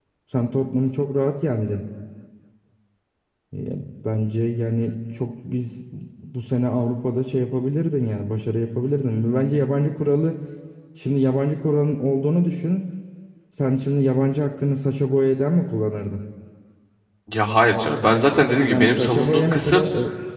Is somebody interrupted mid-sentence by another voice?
Yes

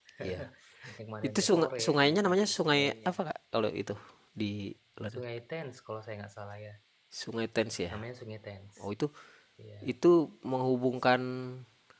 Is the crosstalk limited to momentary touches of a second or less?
No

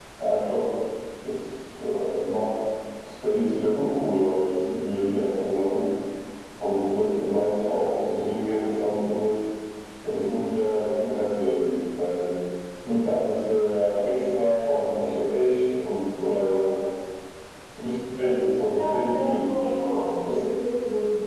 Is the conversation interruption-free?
No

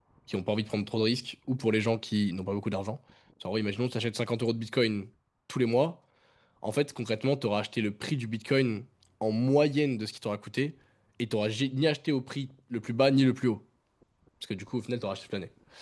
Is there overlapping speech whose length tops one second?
No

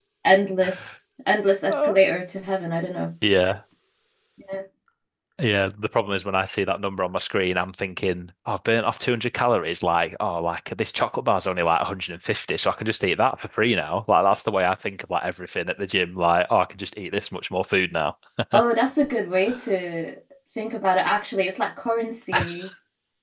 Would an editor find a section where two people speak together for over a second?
No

